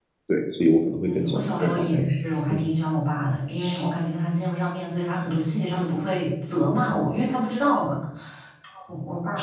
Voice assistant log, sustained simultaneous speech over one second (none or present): present